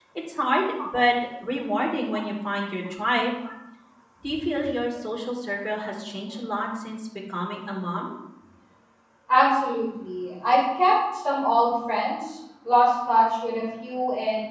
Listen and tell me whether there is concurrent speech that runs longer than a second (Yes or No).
No